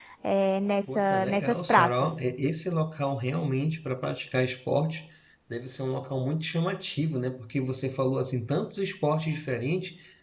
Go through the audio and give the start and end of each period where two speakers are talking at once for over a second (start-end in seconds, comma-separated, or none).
0.9-2.1